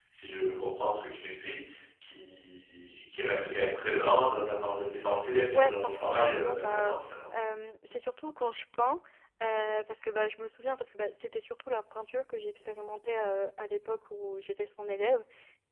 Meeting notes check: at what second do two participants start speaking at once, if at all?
5.5 s

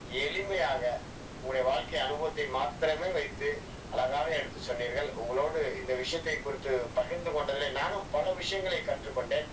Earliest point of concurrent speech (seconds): none

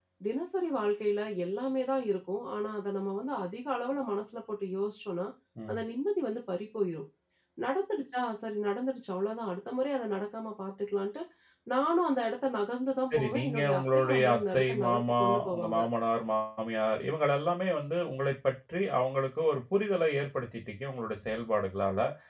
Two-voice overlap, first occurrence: 13.1 s

